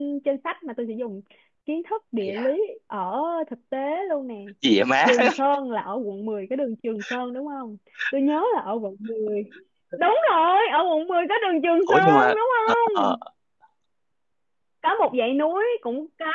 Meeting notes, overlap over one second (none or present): none